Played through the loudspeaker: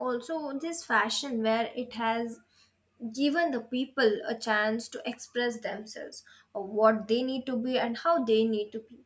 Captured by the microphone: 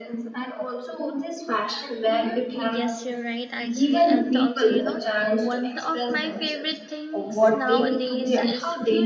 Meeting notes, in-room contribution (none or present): present